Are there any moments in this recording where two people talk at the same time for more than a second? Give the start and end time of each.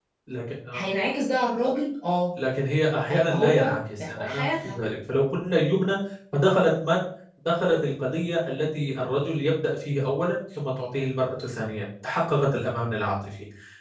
3.0-4.8

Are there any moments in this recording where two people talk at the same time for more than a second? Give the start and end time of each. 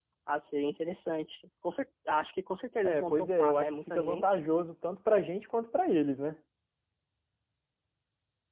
2.8-4.2

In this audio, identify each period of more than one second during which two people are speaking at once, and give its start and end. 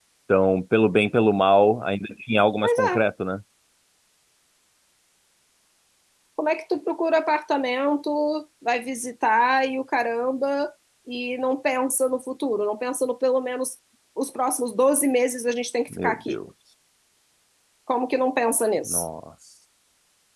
none

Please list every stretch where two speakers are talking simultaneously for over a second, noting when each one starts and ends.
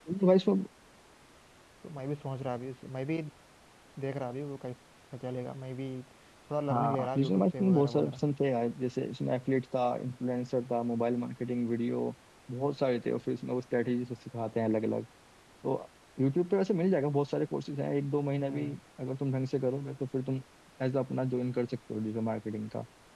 6.7-8.3

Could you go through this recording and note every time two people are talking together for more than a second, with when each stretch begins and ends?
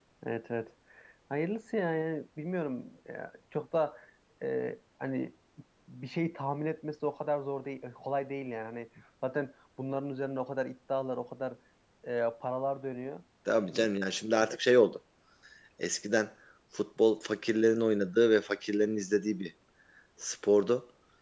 none

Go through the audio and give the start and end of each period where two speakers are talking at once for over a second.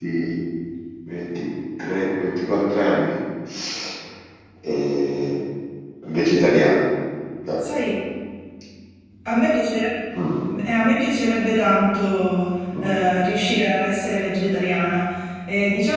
none

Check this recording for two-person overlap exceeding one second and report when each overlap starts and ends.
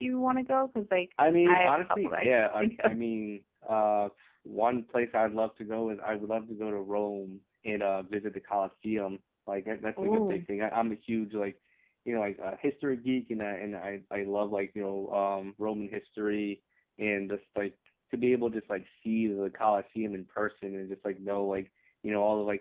1.4-3.0

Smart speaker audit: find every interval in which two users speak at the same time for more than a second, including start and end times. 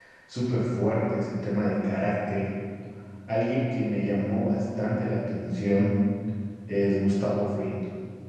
none

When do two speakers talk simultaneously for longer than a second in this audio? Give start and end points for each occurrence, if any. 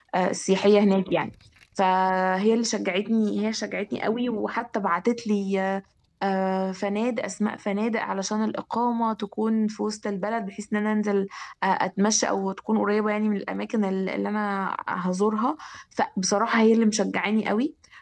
none

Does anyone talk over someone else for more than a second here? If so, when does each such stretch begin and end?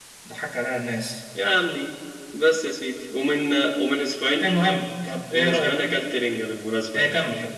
none

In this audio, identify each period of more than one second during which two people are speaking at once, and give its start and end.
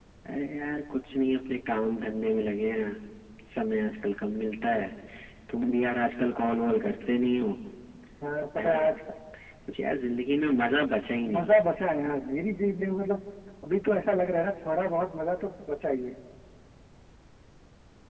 none

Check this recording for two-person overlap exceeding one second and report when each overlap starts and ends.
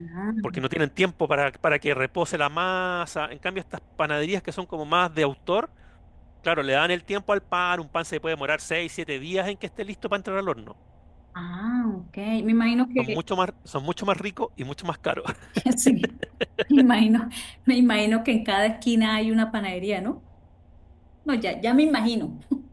none

